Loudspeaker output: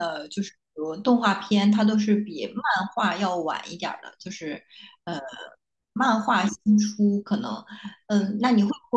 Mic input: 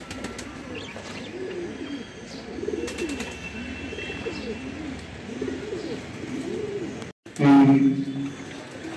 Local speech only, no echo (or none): 嗯，